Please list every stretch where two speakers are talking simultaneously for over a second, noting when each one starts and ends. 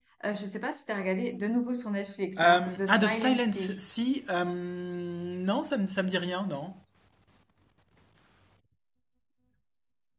2.4-3.9

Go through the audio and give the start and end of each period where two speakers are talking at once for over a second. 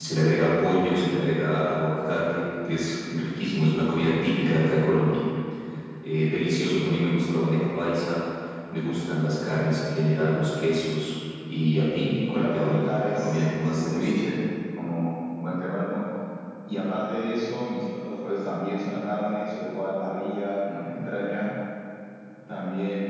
12.2-14.2

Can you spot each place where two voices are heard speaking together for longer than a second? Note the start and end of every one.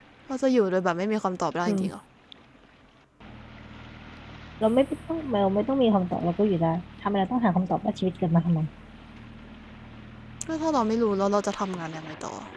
none

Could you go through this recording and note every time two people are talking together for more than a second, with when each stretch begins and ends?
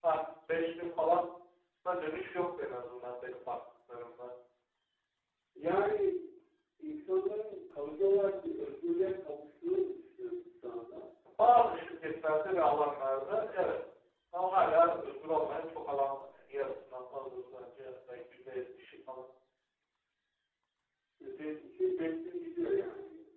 none

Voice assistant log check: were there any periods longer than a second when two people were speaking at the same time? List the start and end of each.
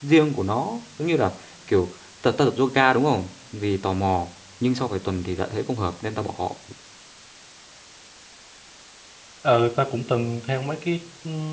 none

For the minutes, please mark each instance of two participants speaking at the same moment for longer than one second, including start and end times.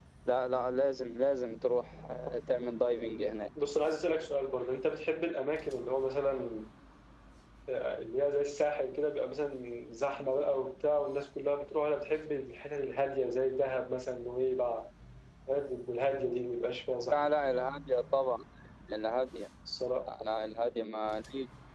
none

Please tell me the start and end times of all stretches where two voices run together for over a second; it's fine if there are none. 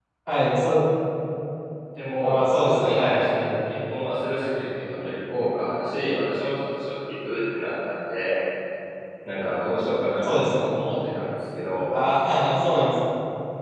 2.2-3.5

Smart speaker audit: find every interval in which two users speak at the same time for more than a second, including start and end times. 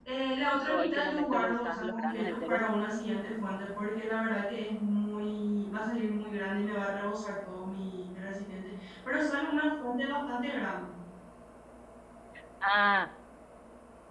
0.7-2.6

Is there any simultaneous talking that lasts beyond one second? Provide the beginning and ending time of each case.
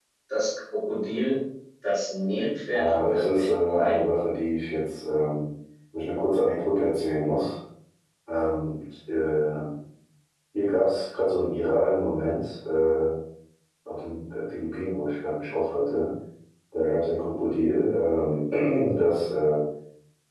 2.7-4.0

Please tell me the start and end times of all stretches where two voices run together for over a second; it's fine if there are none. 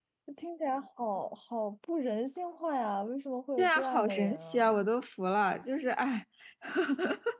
3.6-4.9

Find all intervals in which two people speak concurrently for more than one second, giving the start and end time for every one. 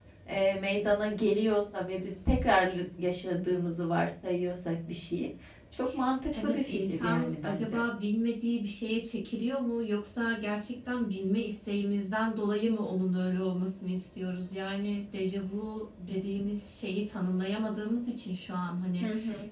6.3-7.8

